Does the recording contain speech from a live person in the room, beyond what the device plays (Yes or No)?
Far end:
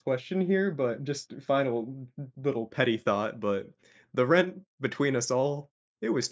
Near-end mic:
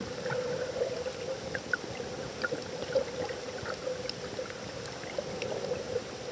No